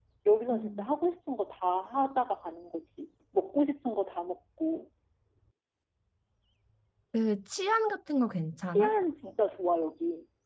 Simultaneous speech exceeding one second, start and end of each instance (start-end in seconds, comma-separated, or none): none